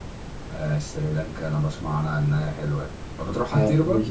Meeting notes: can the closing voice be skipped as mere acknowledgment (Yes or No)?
No